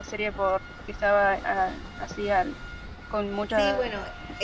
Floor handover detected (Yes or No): Yes